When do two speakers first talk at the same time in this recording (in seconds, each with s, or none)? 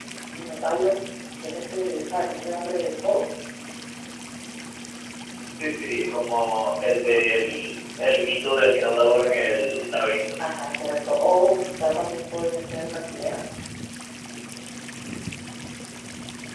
none